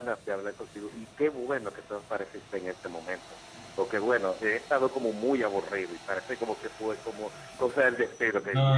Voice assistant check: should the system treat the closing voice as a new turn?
Yes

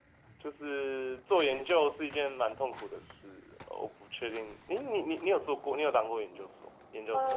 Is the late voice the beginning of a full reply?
Yes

